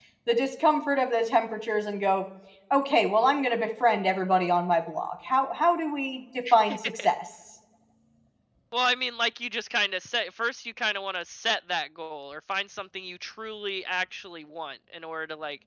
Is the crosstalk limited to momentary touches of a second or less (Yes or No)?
Yes